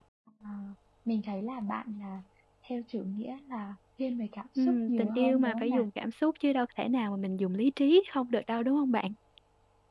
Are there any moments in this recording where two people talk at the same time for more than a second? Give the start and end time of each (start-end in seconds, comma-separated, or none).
4.6-5.8